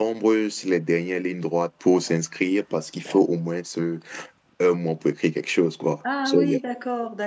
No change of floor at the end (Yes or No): No